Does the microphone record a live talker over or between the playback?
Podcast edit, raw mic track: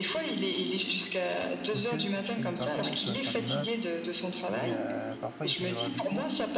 Yes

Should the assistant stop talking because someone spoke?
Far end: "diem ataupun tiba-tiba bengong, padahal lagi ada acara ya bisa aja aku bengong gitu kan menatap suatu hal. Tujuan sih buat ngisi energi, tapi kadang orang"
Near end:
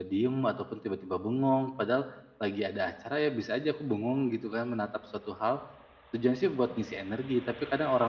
No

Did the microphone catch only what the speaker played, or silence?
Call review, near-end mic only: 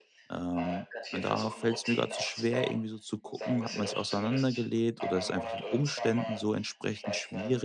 No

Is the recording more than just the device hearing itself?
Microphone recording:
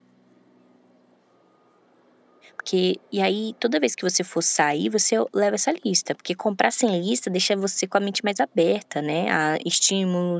Yes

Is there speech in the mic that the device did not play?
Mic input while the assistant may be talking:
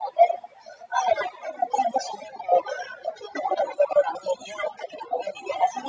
No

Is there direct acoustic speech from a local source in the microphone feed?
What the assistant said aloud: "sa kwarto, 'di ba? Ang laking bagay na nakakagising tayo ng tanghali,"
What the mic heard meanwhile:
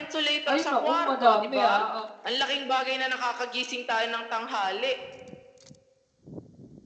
Yes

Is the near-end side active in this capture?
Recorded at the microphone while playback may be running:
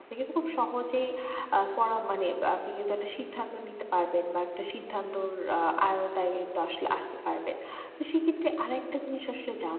Yes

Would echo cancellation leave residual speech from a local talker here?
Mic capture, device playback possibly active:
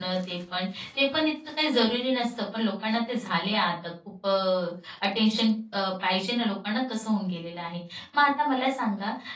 Yes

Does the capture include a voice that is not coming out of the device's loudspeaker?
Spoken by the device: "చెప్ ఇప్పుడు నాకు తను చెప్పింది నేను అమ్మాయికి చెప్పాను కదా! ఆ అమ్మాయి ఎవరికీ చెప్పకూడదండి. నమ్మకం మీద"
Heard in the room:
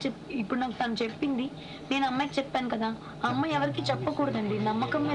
Yes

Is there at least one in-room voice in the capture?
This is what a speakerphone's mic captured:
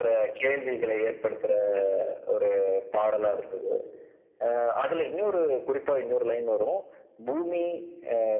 No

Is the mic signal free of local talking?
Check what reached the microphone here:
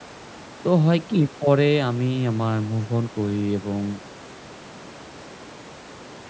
No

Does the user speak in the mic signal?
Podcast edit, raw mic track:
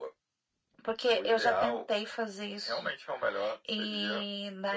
No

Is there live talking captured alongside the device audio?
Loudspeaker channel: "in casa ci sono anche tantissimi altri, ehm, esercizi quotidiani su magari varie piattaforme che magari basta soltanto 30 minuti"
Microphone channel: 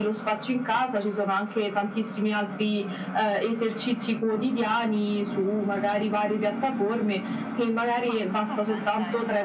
Yes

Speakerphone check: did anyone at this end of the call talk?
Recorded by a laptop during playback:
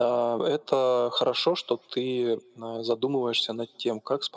No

